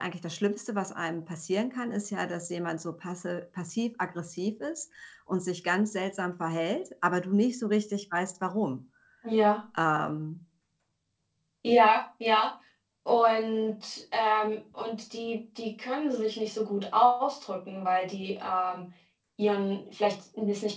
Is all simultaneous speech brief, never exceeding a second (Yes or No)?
Yes